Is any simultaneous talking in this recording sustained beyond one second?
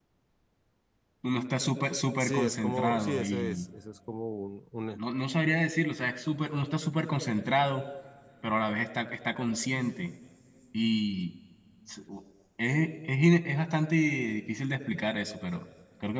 Yes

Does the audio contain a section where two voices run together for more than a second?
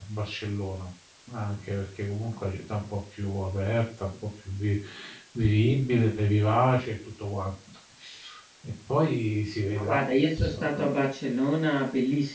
No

